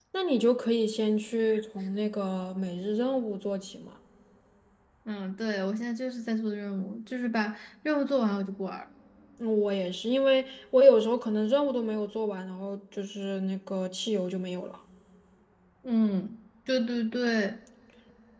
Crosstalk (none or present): none